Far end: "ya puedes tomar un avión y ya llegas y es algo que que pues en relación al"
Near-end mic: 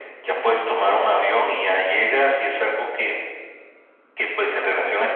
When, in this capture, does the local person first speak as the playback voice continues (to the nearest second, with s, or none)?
none